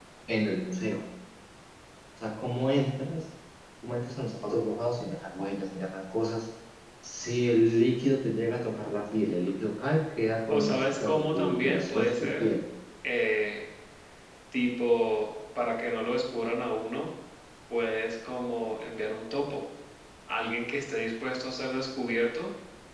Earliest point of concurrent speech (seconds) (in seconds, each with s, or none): 10.5 s